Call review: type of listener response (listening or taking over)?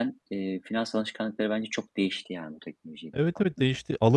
taking over